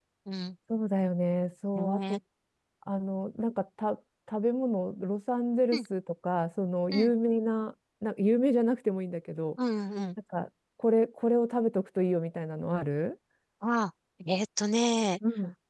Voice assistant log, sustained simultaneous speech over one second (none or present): none